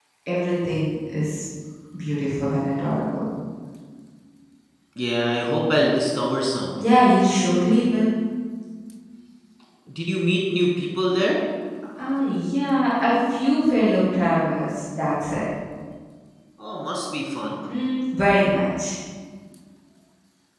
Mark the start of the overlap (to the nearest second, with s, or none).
none